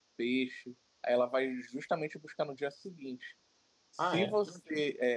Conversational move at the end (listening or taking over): listening